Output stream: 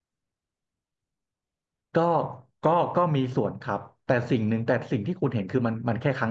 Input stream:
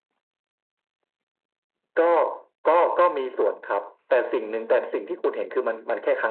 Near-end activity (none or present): present